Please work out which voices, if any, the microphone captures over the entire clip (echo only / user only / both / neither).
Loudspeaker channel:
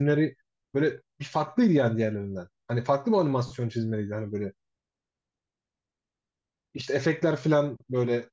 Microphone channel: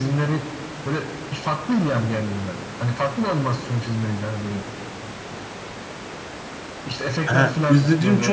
both